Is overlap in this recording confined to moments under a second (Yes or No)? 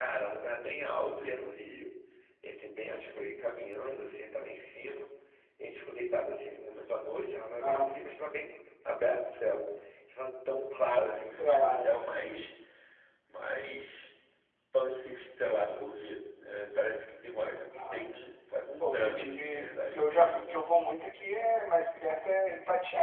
No